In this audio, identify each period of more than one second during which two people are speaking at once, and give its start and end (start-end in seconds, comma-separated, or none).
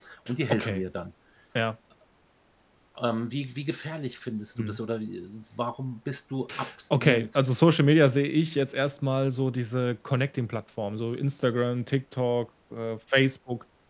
none